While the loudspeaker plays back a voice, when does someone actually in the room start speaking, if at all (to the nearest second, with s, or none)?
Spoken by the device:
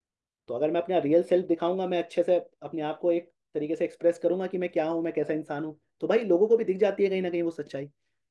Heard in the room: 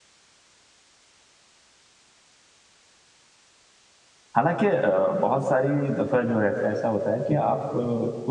4 s